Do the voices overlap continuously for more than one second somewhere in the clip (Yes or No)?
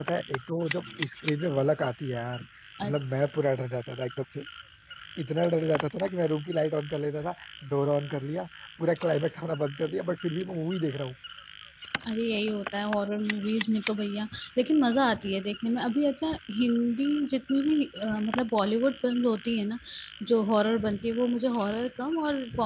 No